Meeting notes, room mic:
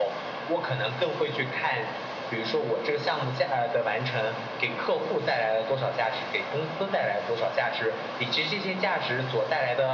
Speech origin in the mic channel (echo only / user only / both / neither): echo only